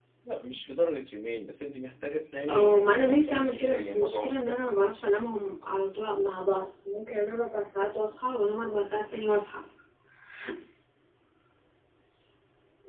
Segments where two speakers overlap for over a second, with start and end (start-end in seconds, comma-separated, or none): 2.5-4.6